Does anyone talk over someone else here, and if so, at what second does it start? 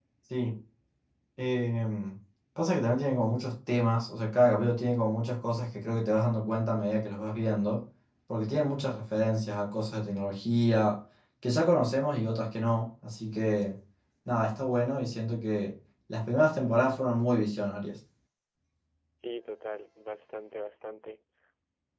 none

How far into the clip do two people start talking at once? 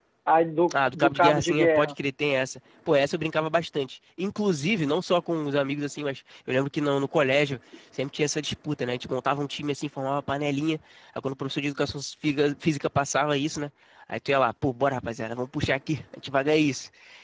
0.7 s

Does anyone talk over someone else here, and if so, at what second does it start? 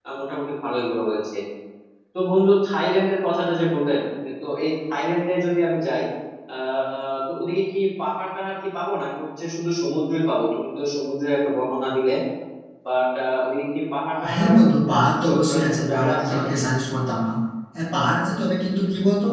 14.1 s

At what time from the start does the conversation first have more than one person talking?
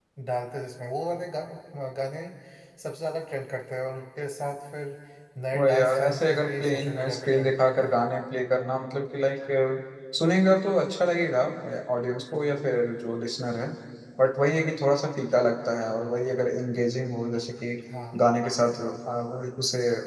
5.5 s

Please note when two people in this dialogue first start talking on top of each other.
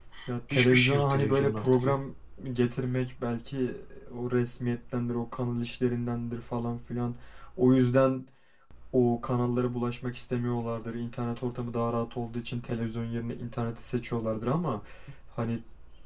0.5 s

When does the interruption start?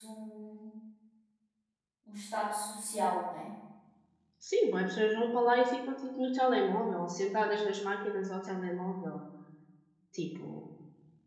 none

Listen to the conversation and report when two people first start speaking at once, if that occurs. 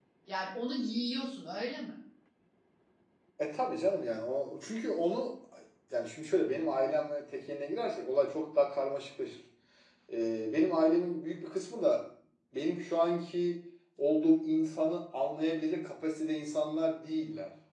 none

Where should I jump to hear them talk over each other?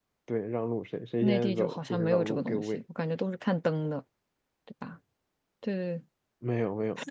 1.2 s

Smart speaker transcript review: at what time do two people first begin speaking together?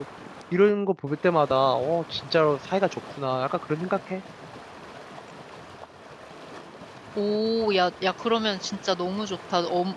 none

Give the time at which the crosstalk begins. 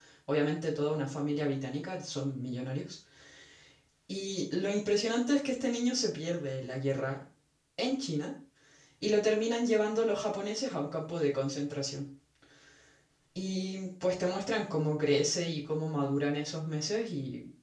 none

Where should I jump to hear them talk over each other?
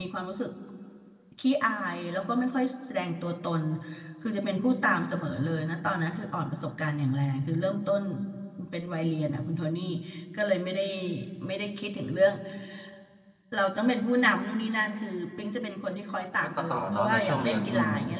16.4 s

